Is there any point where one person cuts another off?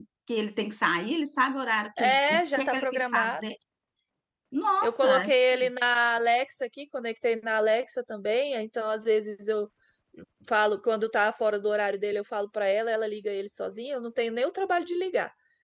Yes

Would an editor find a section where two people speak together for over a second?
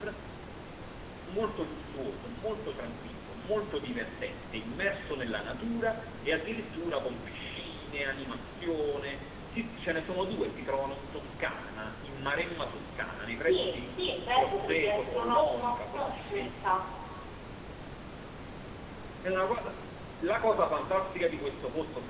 Yes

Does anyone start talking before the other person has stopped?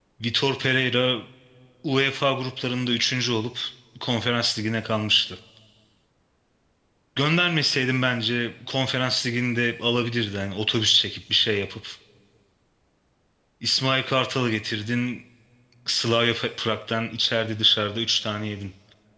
No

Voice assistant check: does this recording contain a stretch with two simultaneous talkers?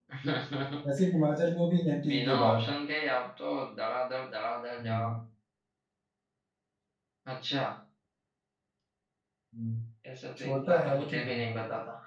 Yes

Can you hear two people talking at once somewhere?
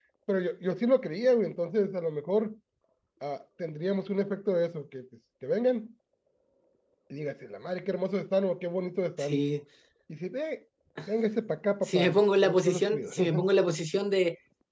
Yes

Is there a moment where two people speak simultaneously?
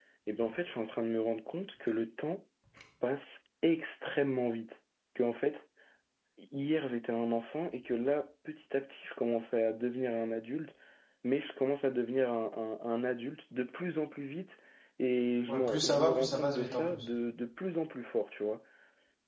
Yes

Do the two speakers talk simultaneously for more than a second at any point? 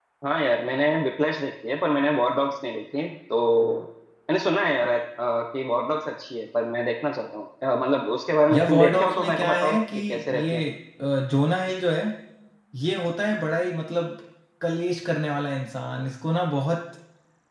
Yes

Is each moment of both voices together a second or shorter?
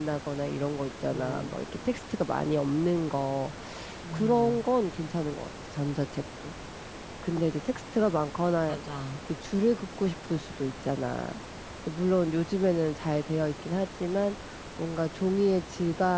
Yes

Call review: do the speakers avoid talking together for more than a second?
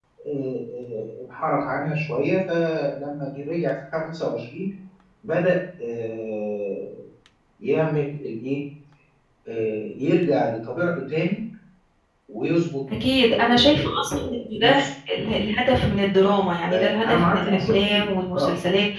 No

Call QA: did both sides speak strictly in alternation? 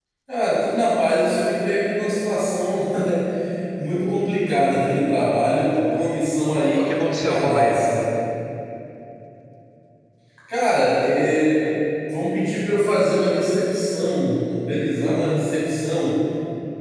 No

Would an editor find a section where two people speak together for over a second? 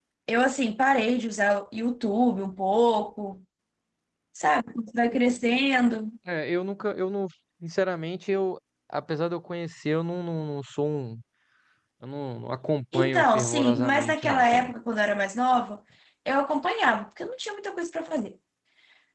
Yes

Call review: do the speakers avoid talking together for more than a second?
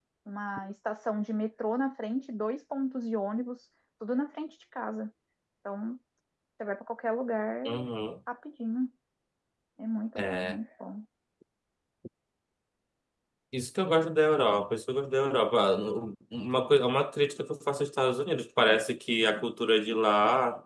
Yes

